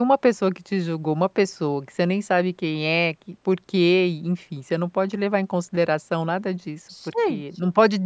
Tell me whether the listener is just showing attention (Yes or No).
Yes